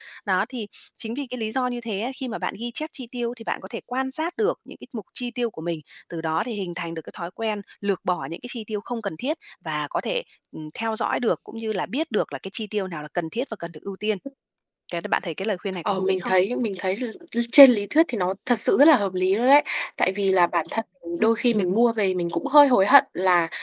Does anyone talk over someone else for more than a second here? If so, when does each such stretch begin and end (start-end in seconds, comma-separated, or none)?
none